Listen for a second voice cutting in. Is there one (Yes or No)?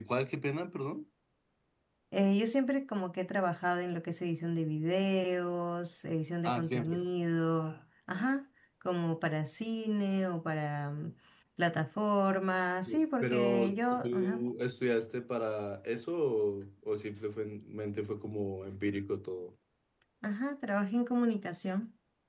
Yes